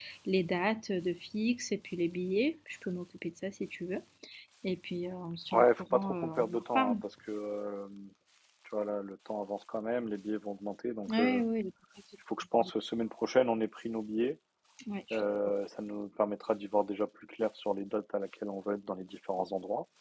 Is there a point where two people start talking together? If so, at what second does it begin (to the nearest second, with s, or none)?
6 s